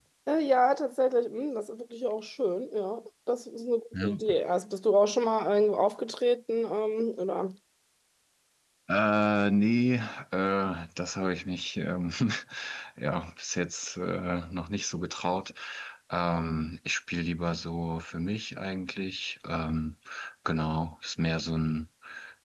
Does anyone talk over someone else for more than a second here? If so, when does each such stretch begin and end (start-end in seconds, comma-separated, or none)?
none